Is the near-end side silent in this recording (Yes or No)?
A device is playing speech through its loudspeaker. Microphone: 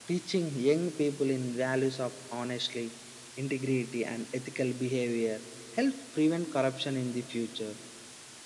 Yes